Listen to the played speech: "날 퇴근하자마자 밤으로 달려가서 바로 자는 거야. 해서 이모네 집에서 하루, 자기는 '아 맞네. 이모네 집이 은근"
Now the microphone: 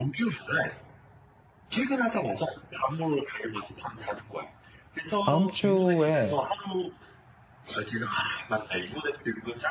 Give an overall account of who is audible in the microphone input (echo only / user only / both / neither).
both